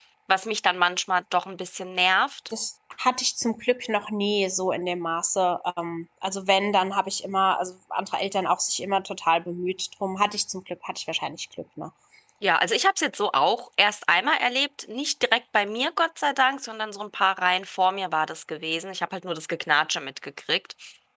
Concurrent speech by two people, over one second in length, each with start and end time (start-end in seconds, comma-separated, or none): none